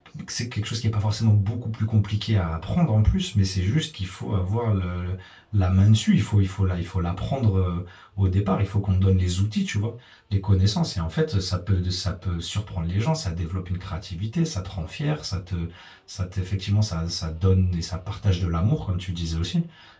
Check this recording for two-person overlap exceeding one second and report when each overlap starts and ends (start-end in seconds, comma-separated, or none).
none